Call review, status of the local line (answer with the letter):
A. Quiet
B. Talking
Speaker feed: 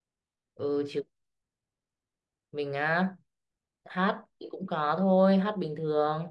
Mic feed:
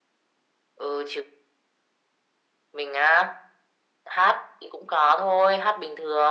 A